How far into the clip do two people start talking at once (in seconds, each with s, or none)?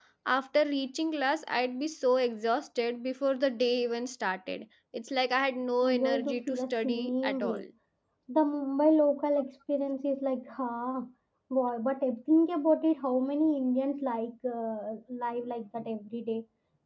5.8 s